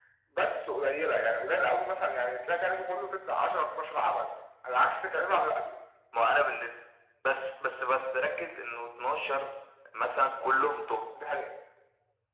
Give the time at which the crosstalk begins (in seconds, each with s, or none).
none